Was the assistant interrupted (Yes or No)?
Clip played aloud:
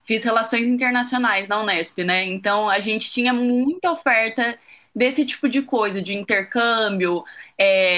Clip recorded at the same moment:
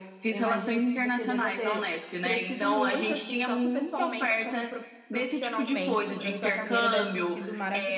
Yes